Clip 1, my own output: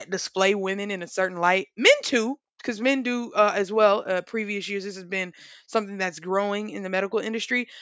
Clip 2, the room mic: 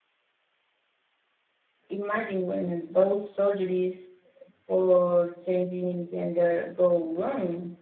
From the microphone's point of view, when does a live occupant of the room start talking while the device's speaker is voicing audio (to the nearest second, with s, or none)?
2 s